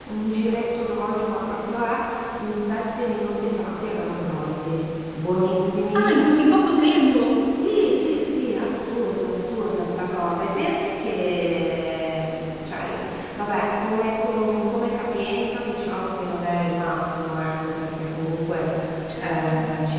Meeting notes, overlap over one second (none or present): none